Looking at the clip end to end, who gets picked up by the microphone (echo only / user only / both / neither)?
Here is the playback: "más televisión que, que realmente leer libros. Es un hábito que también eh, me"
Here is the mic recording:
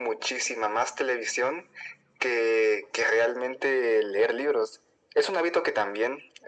echo only